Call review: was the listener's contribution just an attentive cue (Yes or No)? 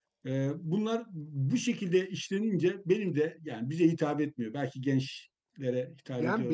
No